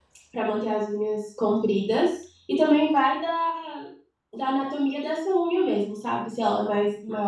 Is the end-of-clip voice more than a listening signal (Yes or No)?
No